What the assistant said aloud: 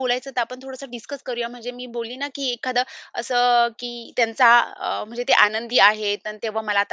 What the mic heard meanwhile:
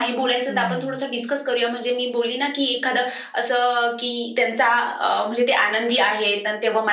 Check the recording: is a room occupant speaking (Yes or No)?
Yes